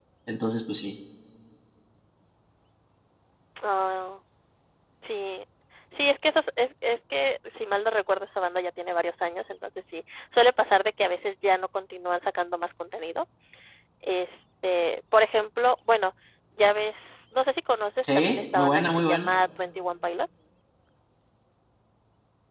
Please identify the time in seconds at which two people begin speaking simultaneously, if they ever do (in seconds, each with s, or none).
18.0 s